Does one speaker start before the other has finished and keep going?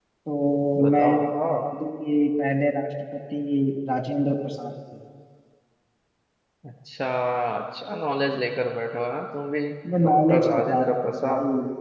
Yes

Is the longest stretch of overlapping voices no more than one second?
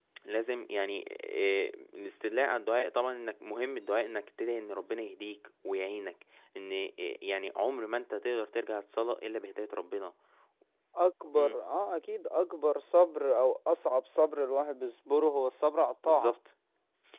Yes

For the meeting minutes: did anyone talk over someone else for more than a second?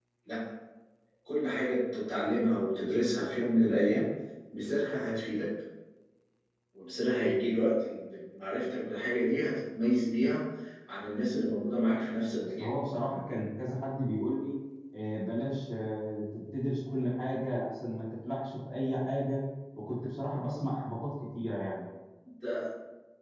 No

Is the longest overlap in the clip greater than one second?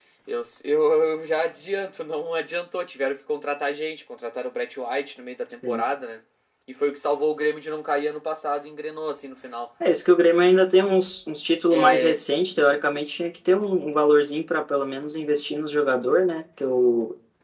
No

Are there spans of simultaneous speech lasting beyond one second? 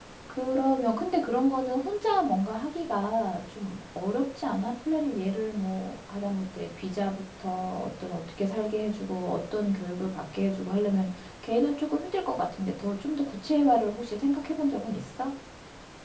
No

